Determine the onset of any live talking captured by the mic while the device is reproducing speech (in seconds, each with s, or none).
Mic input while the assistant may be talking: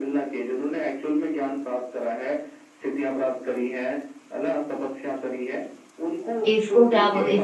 6.5 s